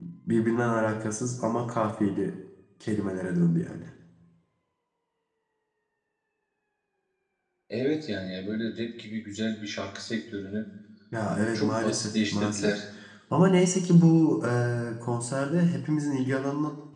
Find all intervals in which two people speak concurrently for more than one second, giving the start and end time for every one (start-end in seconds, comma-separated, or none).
11.3-12.8